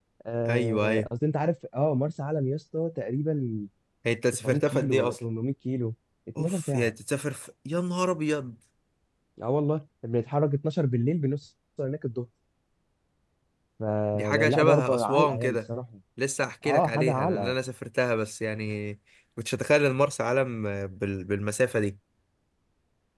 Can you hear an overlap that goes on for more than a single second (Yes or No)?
Yes